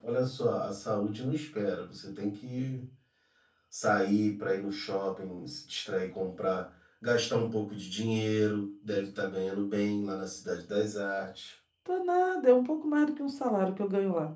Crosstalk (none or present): none